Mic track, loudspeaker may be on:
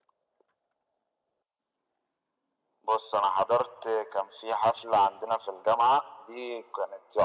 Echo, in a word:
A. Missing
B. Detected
B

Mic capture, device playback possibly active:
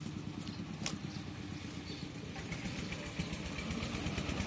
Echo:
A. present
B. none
B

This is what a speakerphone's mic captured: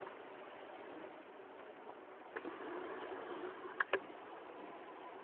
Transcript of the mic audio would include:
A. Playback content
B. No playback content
B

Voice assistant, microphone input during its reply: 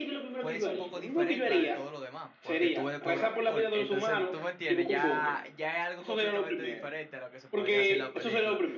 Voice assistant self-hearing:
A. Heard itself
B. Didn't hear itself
A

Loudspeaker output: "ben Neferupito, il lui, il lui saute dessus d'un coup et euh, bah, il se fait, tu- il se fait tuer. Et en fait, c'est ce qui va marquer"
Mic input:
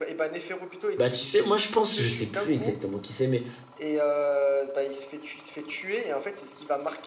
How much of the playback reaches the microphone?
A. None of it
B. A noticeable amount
B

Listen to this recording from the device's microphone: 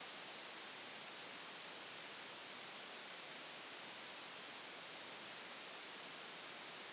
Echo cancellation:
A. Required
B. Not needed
B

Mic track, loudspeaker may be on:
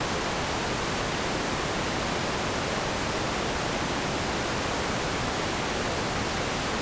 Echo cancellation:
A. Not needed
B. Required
A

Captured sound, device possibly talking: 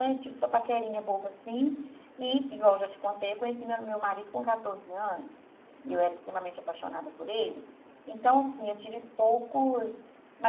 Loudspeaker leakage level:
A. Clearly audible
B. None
B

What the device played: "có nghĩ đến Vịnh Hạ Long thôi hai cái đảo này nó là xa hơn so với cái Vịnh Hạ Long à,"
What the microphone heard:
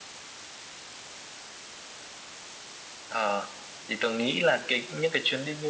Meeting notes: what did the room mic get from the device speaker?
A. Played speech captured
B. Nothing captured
B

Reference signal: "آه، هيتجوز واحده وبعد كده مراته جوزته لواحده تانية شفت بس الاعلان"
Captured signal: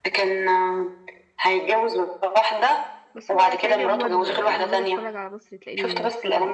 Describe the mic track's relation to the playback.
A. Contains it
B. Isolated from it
A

